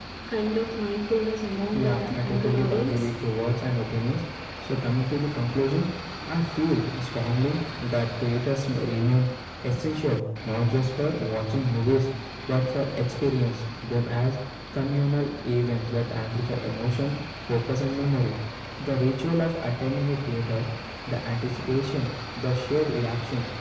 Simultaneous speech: Yes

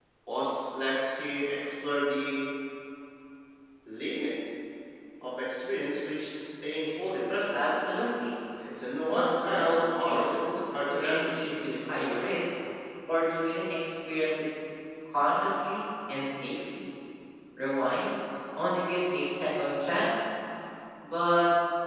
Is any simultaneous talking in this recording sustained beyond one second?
Yes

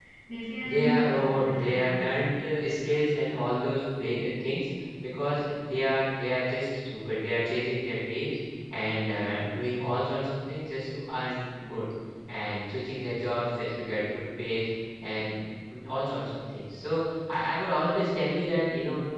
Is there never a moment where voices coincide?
No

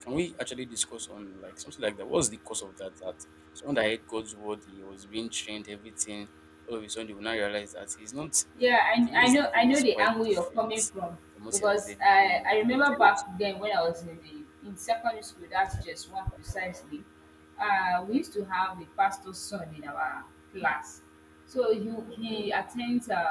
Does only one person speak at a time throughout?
No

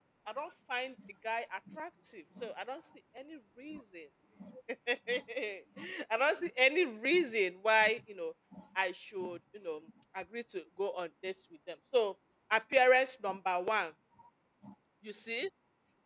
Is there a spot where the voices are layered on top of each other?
No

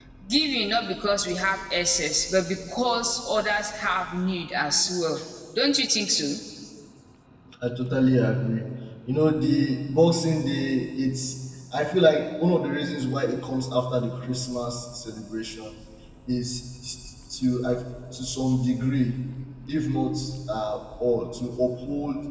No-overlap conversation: Yes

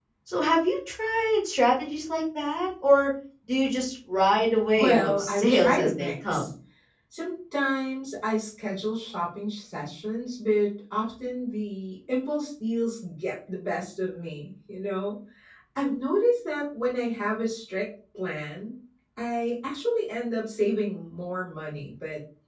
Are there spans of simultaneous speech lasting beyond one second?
Yes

